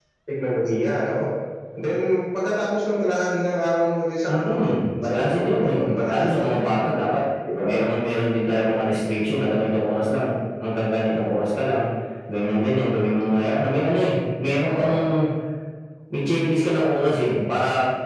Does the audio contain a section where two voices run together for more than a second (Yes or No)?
Yes